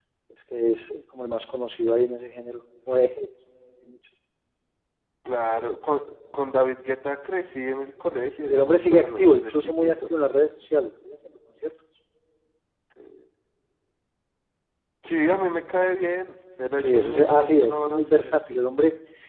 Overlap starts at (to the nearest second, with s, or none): 8 s